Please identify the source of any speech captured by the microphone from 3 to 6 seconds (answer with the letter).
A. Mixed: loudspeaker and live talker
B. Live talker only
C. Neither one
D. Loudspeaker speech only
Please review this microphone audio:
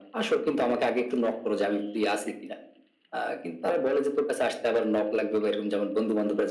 D